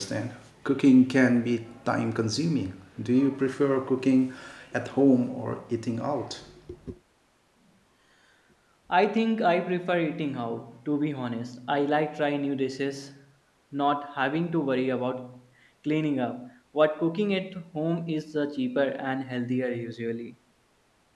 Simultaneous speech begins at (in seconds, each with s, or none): none